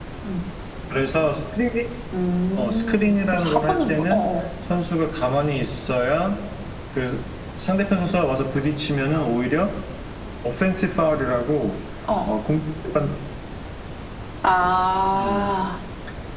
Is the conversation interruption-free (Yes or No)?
No